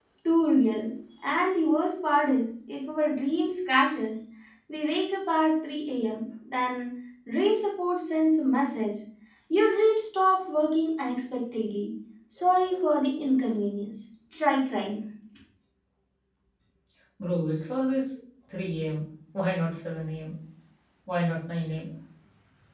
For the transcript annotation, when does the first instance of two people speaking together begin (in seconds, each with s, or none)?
none